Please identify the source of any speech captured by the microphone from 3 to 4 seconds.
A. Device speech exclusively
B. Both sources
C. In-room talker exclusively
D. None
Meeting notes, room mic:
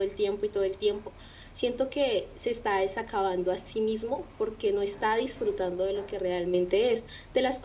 A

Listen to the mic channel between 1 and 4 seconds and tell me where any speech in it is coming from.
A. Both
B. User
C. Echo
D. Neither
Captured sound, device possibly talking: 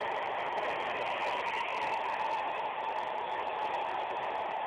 D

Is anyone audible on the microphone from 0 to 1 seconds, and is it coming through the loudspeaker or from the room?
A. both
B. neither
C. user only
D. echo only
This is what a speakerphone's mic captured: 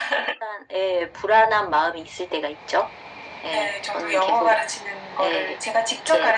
D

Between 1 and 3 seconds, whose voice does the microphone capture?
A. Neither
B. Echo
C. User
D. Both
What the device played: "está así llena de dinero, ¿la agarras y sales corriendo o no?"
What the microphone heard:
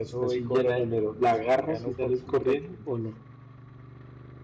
D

